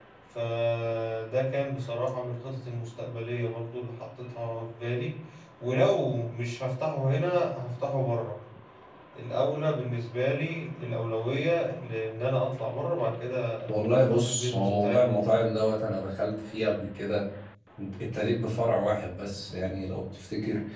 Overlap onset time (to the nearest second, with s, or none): 14 s